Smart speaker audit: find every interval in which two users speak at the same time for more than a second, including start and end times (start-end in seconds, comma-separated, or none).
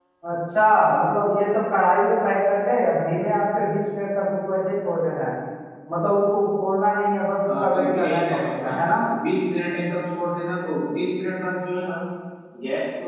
7.5-8.8